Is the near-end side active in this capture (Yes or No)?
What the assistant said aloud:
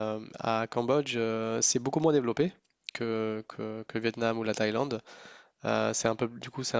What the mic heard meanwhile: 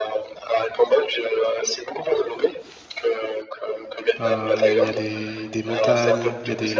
Yes